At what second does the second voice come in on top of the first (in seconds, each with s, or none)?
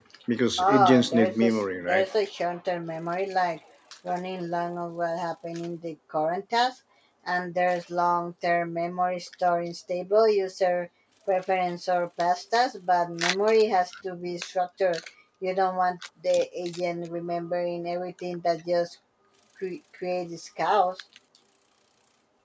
0.6 s